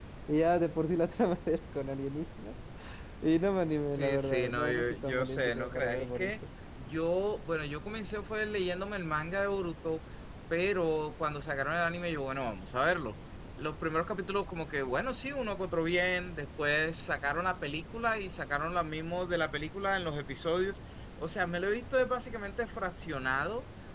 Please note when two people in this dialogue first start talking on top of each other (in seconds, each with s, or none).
3.9 s